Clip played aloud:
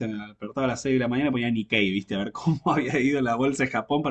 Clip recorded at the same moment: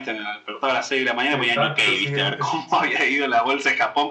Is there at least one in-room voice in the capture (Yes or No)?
Yes